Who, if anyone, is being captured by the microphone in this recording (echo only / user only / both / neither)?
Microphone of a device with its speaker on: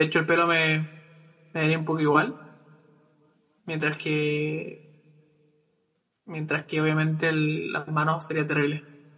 user only